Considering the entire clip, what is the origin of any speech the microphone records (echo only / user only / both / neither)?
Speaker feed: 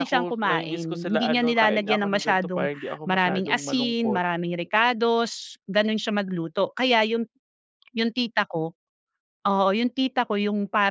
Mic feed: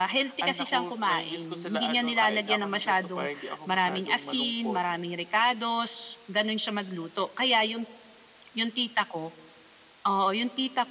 echo only